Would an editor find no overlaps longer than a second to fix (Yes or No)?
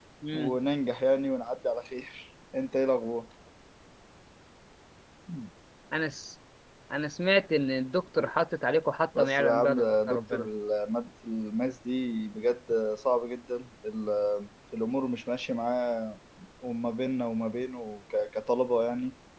No